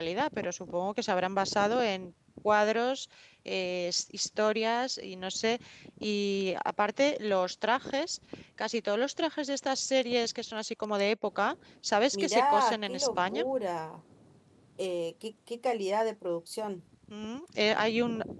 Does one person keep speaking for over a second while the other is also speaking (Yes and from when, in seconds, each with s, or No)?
Yes, from 12.1 s